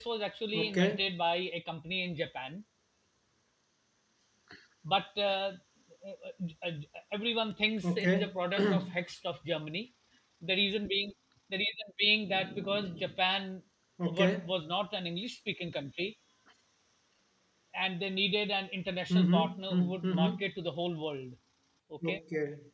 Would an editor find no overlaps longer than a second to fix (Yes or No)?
No